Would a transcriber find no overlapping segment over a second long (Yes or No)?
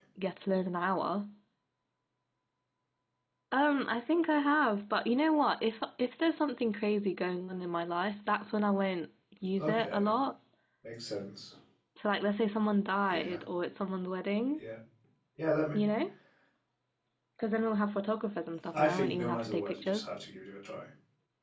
No